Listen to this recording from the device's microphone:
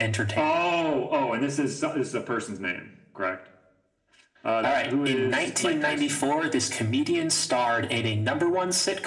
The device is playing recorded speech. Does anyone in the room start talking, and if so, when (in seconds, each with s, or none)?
none